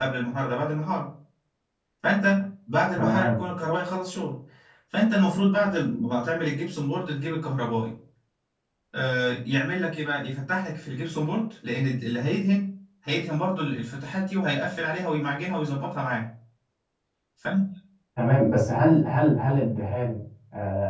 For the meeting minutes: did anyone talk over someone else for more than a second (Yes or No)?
No